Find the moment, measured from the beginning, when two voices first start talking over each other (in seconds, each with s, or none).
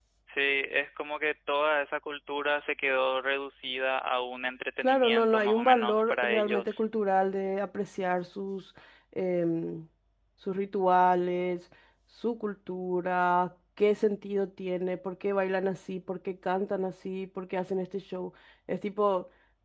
4.8 s